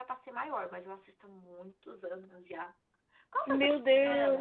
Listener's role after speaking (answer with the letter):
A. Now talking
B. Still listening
A